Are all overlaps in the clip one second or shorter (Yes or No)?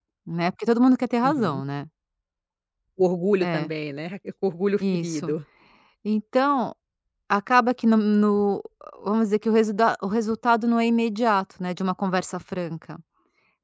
Yes